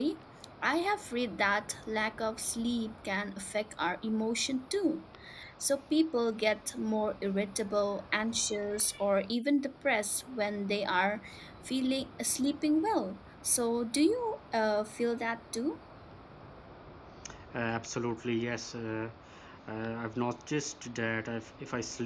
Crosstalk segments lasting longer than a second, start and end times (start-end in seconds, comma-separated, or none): none